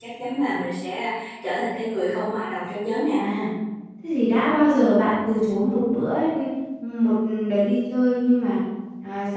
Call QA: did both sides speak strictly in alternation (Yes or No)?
Yes